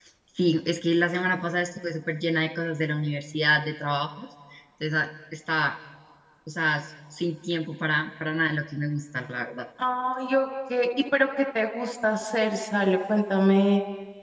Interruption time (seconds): none

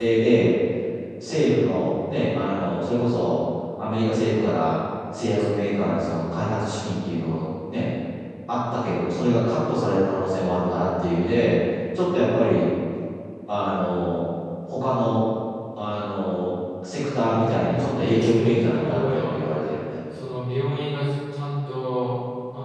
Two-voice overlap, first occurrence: 17.4 s

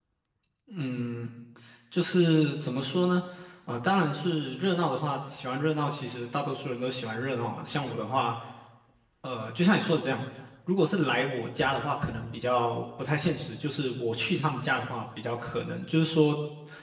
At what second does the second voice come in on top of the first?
none

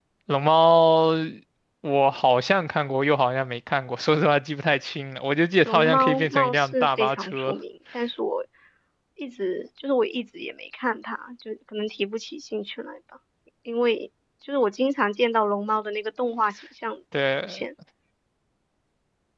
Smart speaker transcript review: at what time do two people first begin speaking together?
5.7 s

